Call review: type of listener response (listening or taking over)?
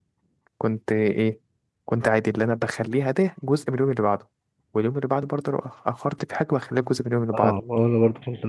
taking over